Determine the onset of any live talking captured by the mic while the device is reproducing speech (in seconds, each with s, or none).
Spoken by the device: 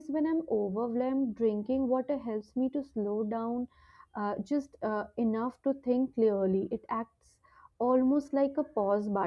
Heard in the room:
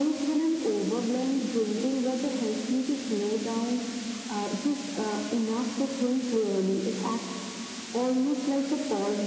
none